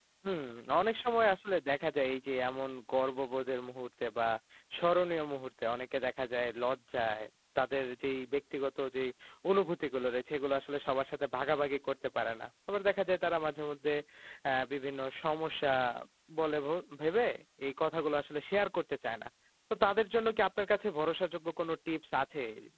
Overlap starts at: none

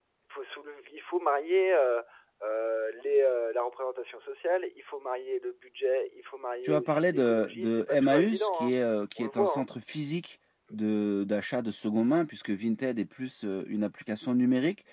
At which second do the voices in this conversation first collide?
6.7 s

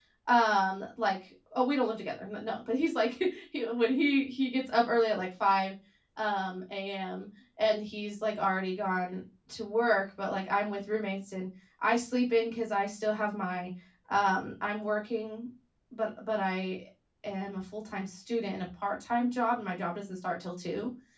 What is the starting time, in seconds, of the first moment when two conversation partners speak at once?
none

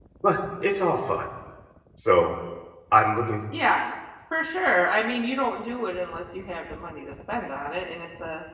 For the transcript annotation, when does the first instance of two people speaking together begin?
none

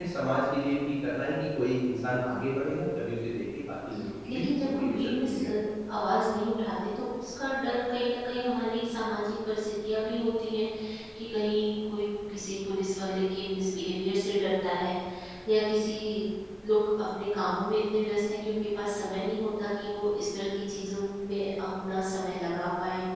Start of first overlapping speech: 4.2 s

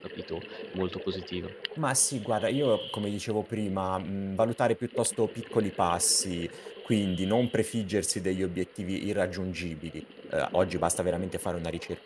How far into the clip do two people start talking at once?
none

